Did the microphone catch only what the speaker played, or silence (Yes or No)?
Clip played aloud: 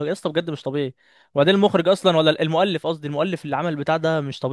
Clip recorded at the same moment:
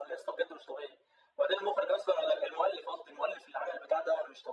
Yes